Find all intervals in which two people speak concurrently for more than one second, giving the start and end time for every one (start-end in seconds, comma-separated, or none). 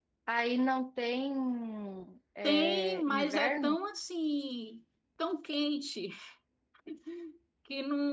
2.4-3.8